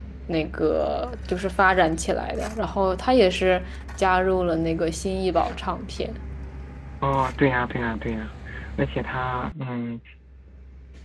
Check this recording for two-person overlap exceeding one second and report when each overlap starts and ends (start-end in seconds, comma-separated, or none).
none